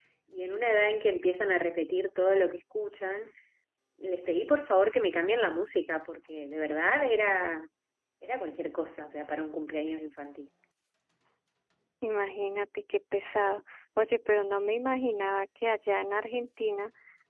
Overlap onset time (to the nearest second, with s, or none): none